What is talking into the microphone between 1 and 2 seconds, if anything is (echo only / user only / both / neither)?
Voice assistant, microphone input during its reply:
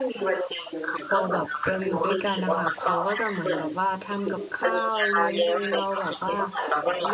both